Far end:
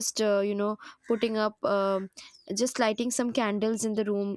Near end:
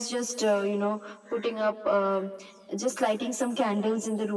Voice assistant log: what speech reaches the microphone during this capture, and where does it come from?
echo only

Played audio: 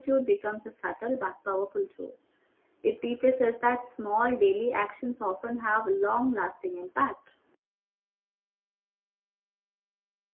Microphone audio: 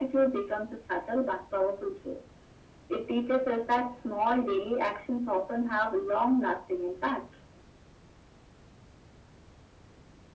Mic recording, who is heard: echo only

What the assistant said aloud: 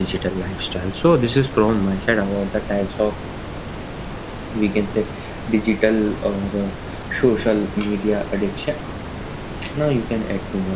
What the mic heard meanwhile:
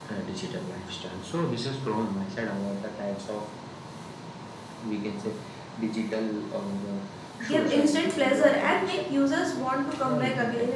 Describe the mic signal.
both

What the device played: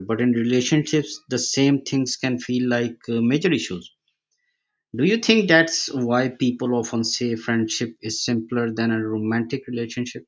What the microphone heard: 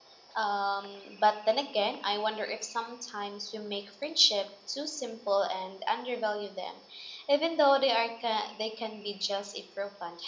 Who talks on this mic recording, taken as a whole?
user only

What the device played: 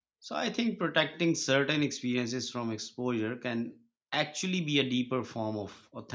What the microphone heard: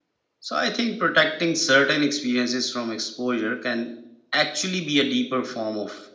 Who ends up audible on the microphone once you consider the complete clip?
echo only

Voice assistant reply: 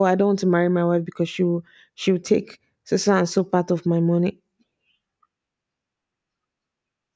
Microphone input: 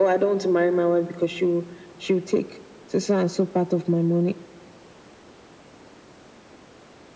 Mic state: echo only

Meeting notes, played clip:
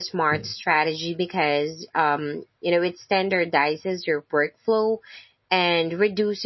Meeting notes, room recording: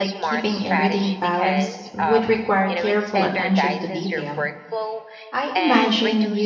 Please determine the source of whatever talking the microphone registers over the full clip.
both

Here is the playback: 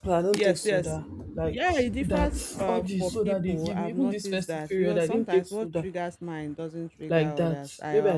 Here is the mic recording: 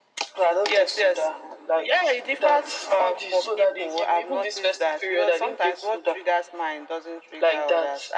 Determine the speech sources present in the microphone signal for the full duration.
echo only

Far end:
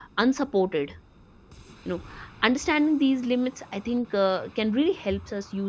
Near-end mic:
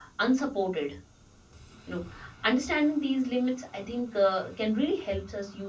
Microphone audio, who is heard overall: echo only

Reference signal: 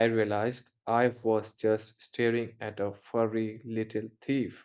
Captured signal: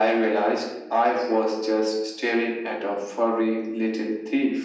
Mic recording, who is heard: echo only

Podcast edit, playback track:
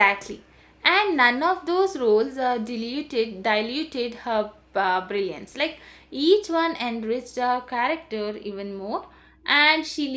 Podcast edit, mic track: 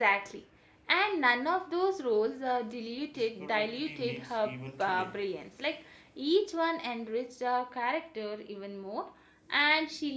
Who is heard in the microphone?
both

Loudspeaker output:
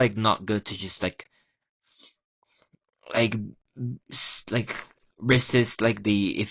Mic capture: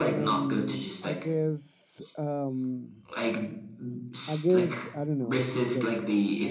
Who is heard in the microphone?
both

